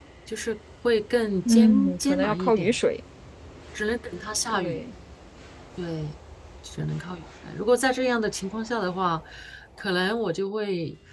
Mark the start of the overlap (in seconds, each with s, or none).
1.4 s